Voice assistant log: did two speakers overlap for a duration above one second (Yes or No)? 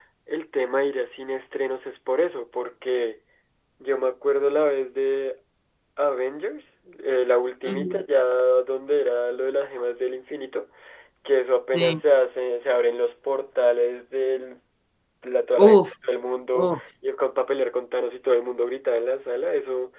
No